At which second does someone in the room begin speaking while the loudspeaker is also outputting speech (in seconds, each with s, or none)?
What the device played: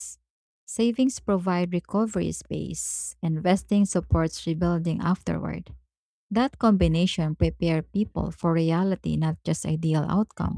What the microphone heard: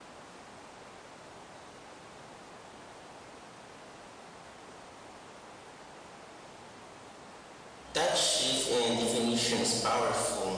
7.9 s